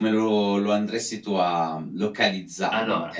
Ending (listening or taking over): listening